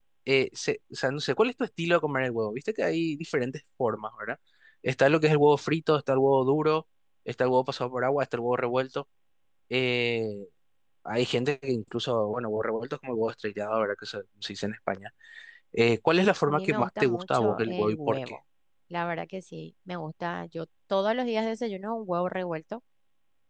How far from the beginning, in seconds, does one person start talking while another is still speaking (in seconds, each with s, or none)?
16.5 s